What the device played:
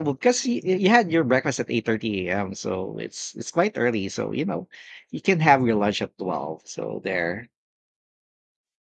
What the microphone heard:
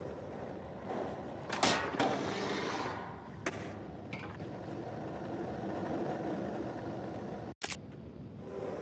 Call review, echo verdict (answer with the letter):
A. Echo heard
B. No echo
B